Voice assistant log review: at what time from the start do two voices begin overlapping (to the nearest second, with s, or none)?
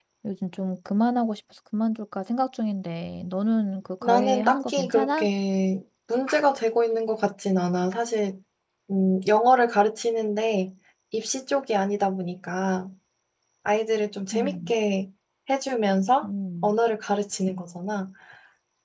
4 s